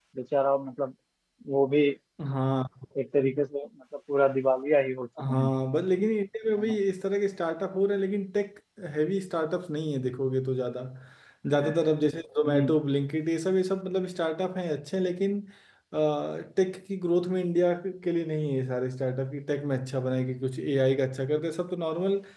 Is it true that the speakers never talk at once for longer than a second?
Yes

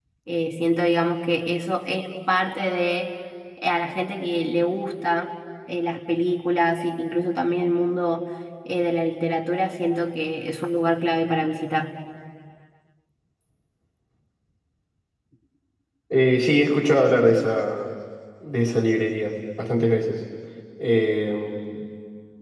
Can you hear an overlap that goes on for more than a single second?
No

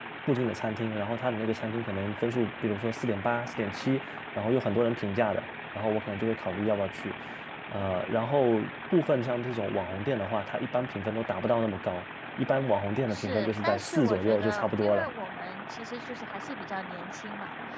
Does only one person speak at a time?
No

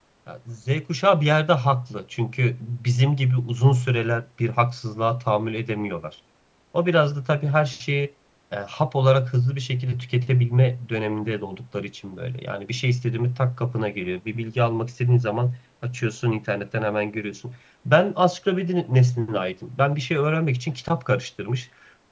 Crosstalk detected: No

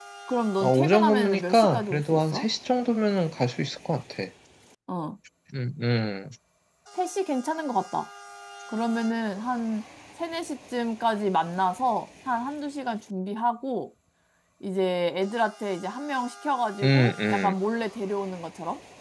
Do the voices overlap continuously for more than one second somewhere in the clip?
Yes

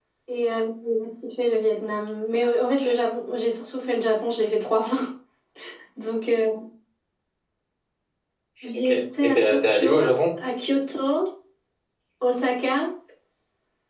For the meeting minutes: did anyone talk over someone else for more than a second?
Yes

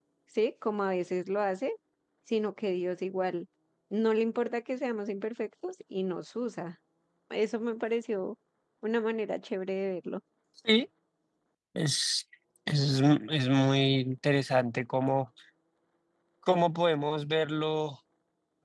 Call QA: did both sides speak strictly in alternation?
Yes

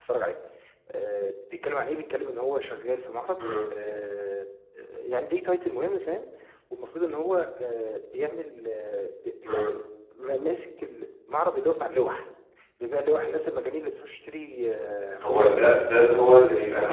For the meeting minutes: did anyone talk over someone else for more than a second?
No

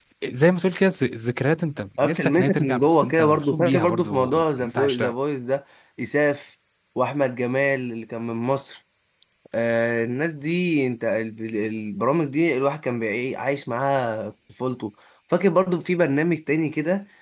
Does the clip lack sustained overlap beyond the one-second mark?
No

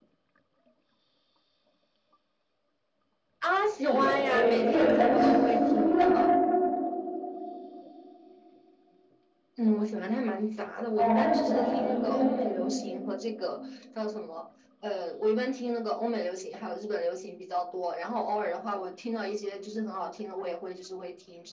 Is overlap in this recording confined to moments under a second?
No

